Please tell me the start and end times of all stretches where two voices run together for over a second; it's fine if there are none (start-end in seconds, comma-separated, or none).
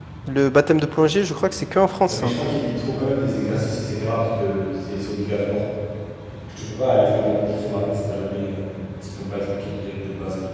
none